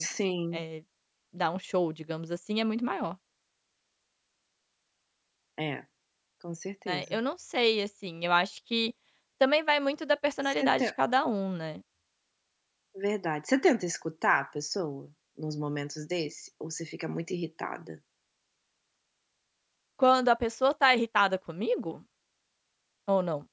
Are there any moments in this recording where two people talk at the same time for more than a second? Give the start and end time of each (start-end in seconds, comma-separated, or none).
none